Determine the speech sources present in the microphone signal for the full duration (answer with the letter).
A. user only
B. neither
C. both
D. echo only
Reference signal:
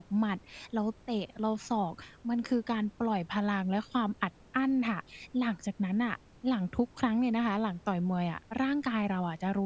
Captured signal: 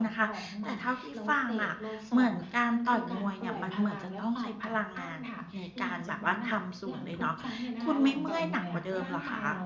C